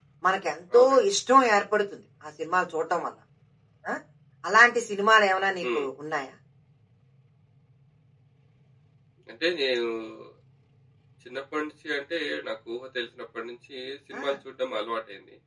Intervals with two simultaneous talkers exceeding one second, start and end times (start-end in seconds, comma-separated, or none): none